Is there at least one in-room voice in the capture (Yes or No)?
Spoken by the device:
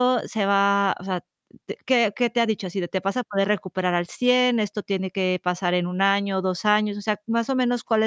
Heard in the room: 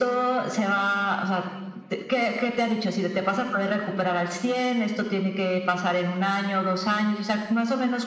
No